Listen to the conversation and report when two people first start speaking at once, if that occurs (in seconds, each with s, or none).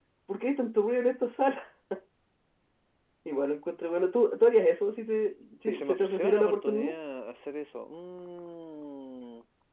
5.7 s